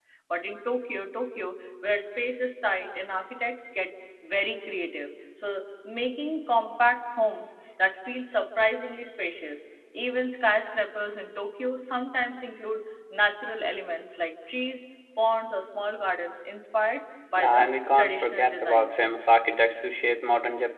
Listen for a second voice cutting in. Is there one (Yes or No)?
Yes